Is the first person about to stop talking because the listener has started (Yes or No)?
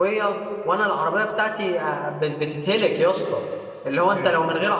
No